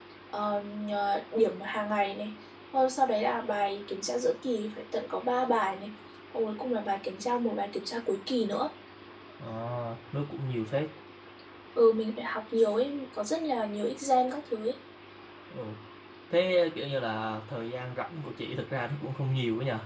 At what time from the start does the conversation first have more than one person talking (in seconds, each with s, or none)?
none